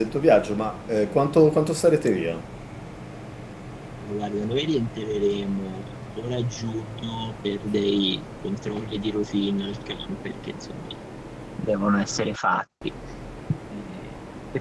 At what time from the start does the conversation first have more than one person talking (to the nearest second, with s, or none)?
none